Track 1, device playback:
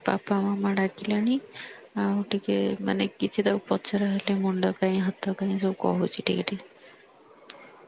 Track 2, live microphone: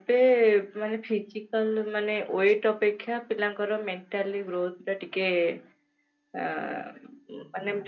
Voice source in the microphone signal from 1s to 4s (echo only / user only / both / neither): user only